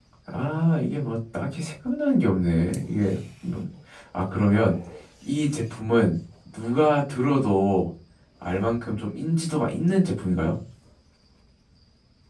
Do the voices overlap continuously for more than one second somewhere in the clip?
No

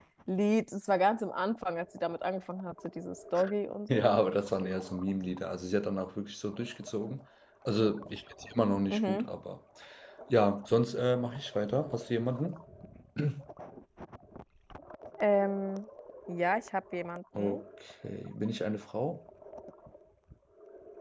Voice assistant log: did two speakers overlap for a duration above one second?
No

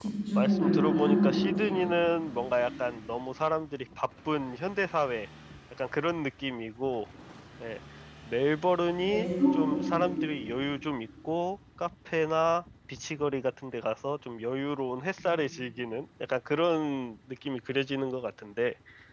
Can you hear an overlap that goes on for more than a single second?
Yes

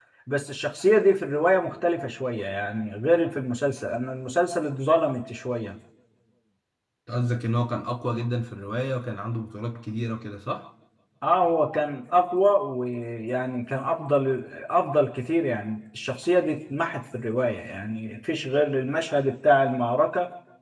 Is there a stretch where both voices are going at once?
No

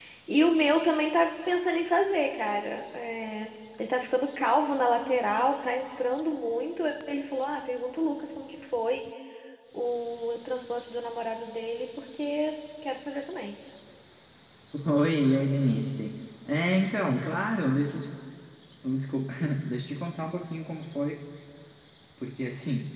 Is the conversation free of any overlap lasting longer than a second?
Yes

